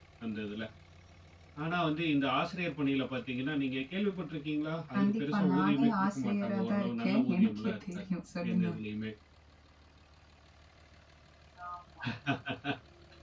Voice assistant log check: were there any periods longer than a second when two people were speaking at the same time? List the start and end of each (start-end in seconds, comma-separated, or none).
4.9-8.0